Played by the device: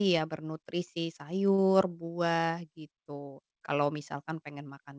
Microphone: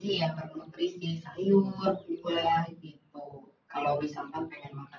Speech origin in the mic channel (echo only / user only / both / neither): echo only